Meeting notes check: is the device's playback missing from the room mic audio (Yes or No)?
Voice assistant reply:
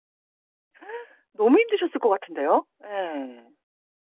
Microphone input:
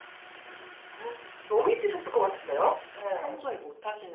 No